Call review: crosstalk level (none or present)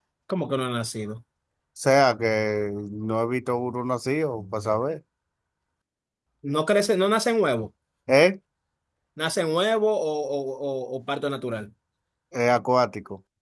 none